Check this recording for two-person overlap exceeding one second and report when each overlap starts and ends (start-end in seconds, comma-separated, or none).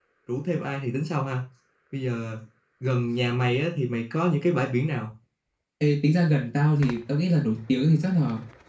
none